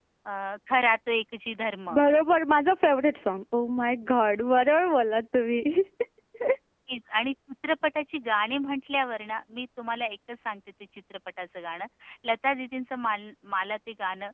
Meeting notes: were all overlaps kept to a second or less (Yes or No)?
Yes